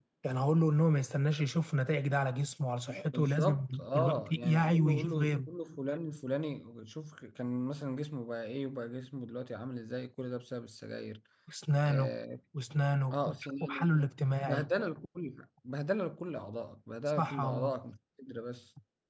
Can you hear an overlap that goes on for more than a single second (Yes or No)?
Yes